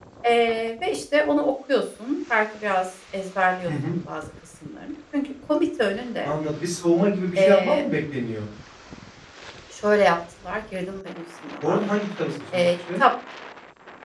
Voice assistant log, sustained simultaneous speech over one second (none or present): none